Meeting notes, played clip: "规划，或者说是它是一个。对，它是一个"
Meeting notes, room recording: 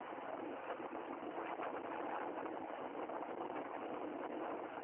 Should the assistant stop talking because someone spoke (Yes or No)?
No